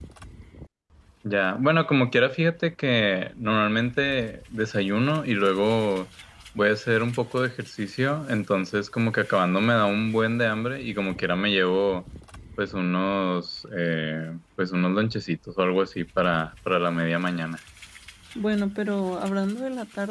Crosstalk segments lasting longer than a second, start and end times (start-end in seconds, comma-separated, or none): none